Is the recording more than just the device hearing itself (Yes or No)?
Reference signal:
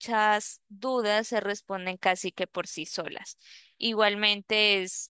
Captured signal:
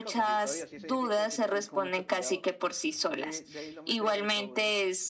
Yes